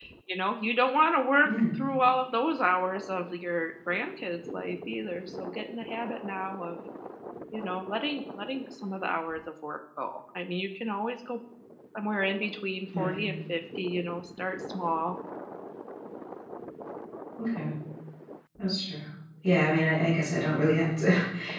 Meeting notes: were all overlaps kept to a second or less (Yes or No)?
Yes